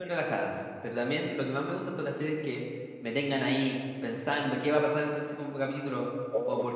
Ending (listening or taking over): listening